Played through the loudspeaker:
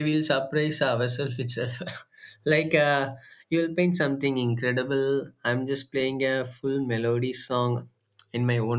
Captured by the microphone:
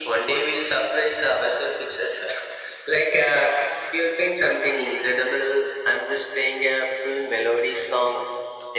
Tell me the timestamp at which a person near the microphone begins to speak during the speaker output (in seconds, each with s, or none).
none